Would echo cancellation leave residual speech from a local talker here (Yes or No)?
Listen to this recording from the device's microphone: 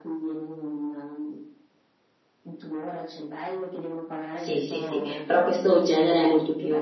Yes